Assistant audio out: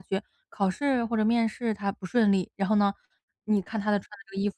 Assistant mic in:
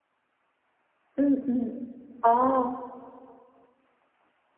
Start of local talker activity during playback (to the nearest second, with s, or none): 1 s